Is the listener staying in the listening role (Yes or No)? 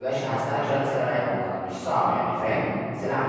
Yes